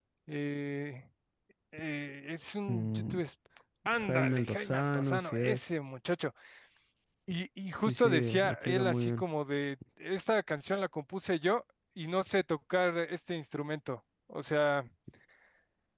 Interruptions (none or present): present